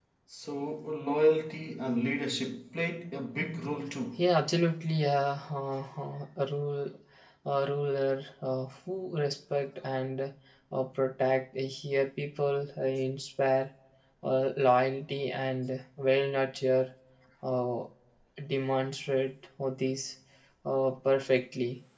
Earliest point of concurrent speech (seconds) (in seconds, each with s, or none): none